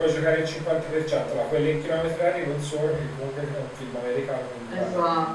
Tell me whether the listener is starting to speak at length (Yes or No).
No